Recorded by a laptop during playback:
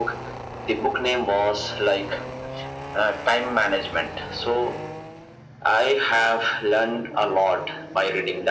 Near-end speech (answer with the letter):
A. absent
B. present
A